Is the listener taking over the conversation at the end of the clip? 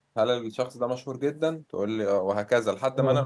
Yes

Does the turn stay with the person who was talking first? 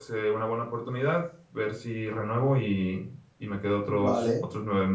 No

